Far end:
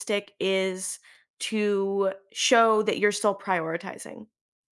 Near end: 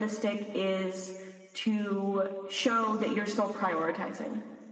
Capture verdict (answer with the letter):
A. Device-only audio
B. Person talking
A